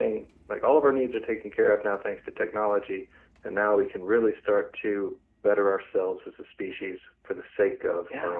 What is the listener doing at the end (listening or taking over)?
listening